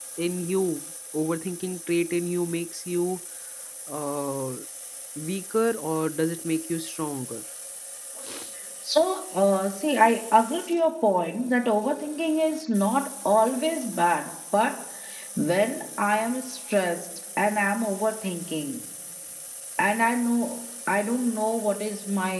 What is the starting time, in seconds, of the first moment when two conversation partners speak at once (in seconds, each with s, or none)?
none